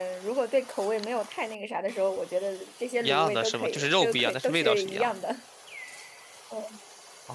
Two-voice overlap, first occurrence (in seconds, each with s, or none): 3.0 s